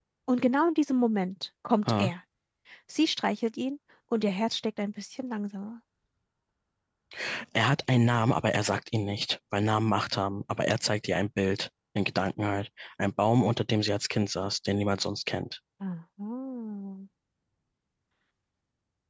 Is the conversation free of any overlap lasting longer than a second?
Yes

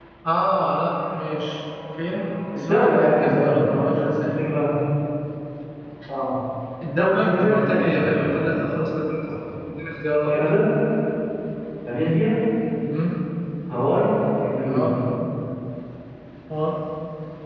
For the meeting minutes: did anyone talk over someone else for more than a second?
Yes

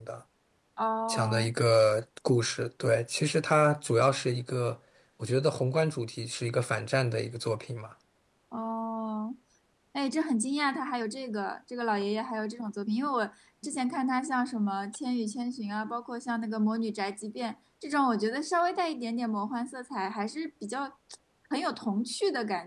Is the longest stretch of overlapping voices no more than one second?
Yes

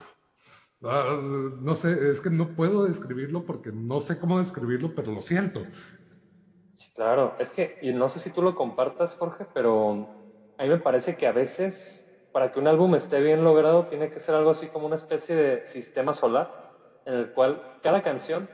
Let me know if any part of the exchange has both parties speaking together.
No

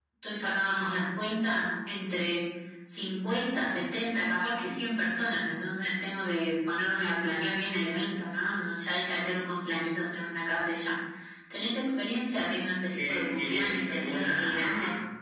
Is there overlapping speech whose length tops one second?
Yes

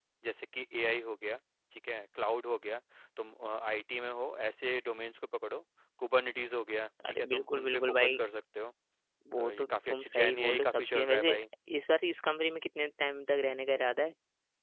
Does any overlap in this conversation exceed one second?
Yes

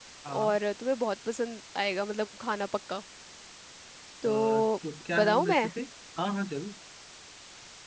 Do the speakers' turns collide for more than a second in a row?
No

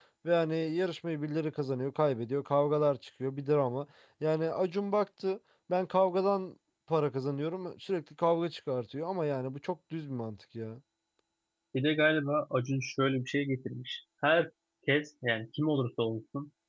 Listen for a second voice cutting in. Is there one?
No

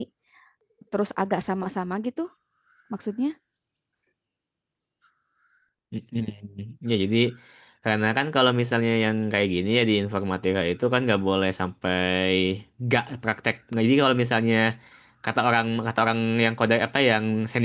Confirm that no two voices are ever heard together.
Yes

